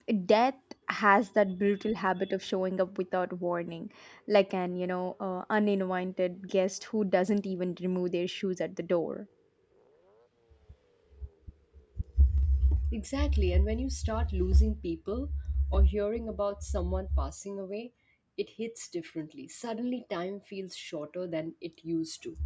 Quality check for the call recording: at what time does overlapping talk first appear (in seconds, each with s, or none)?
none